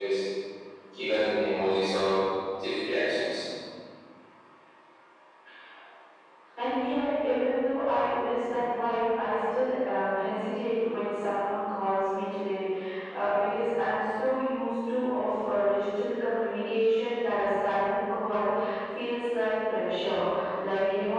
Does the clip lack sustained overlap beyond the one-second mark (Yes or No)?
Yes